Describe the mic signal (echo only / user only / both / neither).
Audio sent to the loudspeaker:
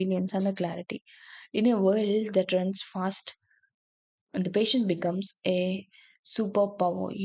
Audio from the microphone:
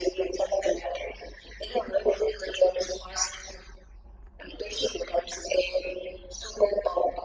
echo only